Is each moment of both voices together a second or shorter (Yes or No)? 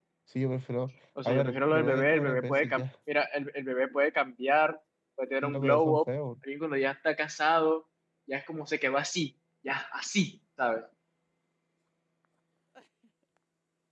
No